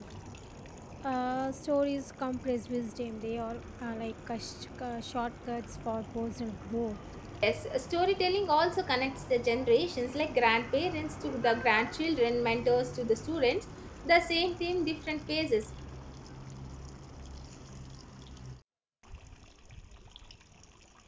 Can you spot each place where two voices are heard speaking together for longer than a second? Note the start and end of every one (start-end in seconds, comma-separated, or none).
none